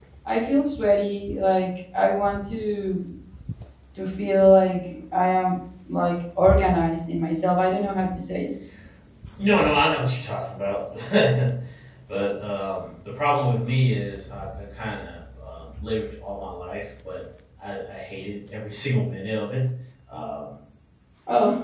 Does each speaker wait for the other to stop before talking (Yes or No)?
Yes